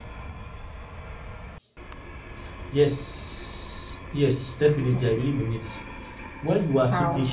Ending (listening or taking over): listening